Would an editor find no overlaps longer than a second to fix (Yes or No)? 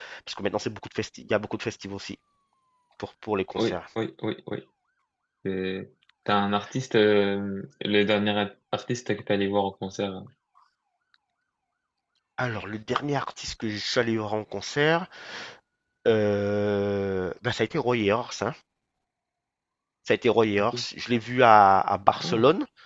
Yes